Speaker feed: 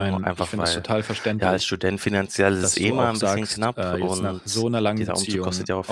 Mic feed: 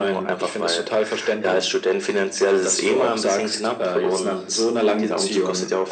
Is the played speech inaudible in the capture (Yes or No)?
No